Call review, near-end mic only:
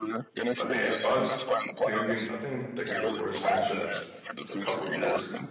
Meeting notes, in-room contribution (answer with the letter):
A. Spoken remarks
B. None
A